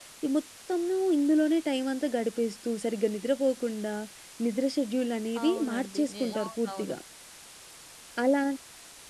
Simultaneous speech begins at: 5.4 s

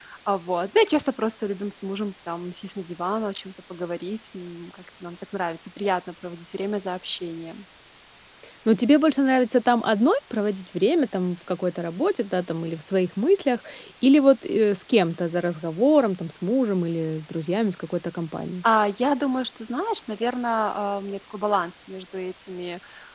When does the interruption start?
none

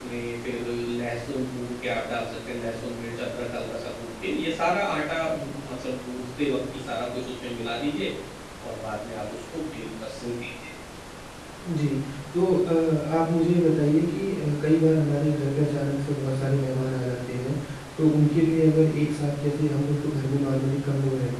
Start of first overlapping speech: none

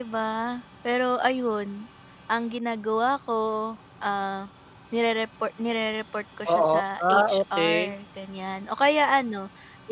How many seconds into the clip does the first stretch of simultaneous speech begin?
6.5 s

